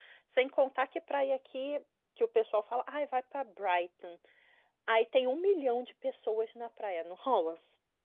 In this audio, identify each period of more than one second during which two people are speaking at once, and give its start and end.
none

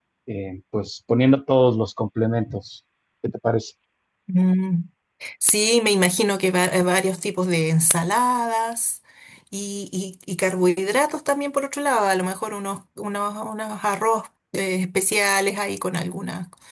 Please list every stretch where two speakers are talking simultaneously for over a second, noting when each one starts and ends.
none

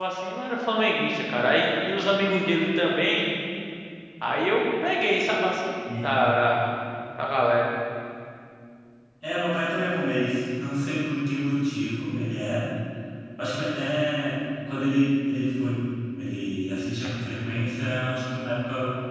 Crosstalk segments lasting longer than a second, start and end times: none

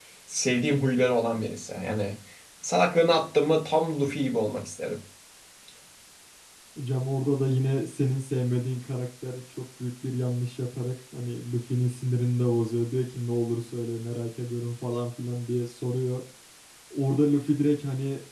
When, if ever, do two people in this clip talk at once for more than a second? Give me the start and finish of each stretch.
none

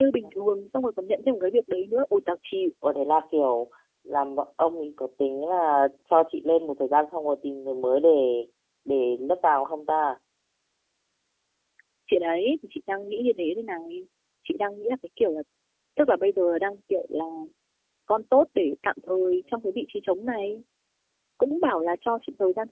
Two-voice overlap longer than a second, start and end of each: none

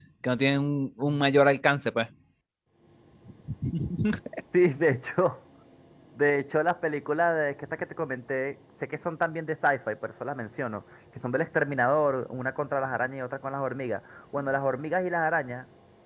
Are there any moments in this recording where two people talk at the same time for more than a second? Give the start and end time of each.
none

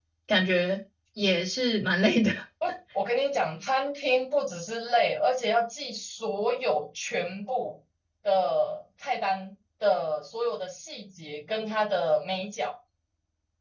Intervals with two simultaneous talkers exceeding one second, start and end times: none

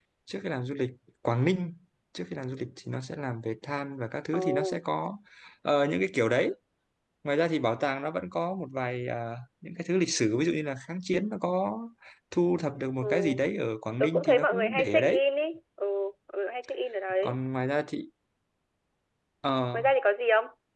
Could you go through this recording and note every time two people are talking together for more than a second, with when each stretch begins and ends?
14.0-15.2

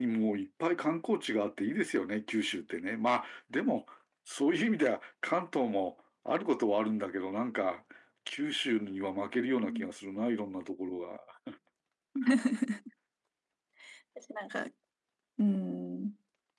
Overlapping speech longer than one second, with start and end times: none

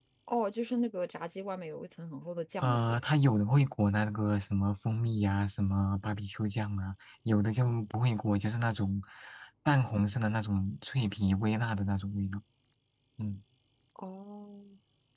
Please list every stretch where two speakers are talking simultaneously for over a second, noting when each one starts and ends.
none

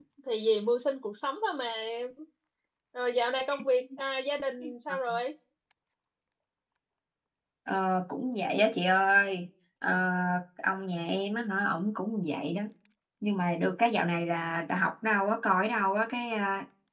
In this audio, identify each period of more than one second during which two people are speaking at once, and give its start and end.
none

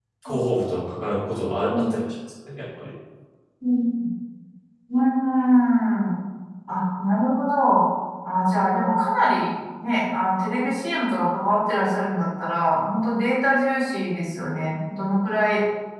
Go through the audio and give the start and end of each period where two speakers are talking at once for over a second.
none

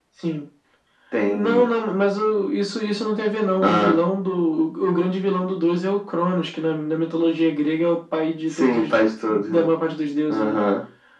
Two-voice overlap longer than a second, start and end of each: 8.5-9.7

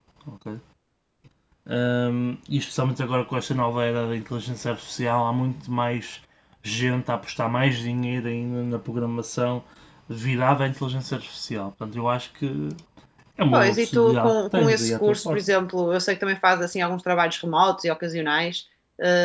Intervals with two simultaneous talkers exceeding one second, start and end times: 13.5-15.5

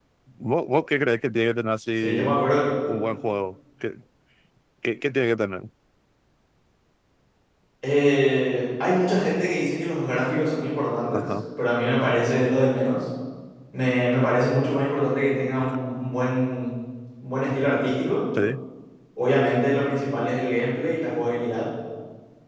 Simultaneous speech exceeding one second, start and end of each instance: none

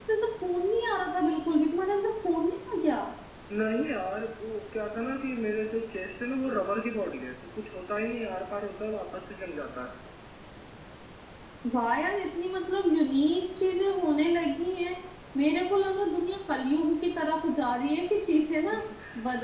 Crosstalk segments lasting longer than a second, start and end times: none

